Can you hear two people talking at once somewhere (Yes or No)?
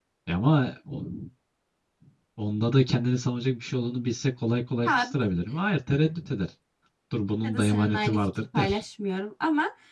Yes